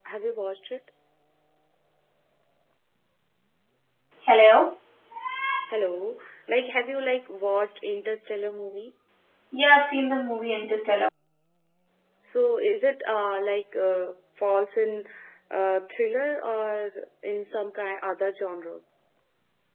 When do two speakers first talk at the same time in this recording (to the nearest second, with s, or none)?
none